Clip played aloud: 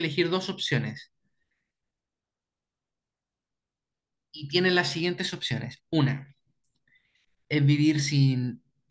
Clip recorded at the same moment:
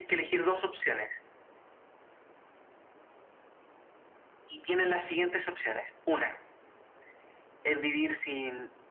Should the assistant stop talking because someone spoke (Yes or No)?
No